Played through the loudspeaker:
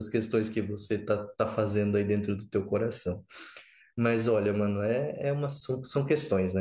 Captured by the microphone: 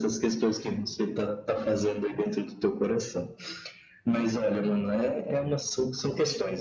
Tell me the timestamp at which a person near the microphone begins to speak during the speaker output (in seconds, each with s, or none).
none